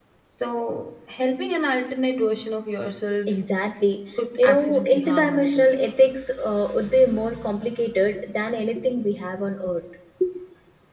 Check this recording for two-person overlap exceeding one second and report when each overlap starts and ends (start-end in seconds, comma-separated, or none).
4.4-5.7